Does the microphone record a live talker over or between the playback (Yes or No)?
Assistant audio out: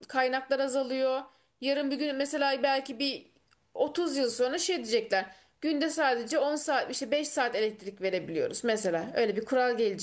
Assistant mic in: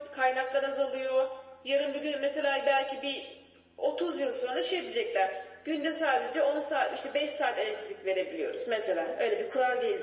No